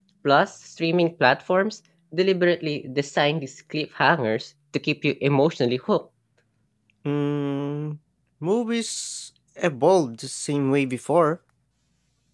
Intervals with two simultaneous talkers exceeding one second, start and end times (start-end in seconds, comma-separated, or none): none